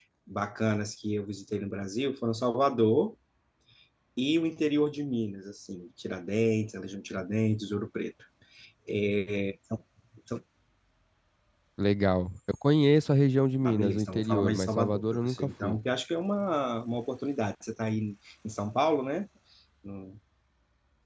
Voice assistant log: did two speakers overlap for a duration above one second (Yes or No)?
Yes